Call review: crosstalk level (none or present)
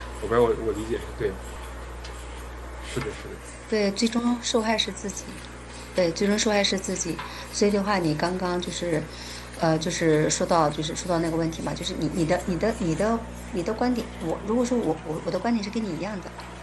none